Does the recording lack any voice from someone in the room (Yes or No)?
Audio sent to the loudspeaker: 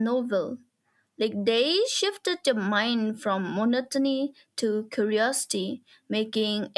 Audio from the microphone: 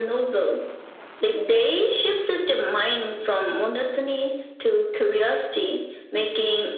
Yes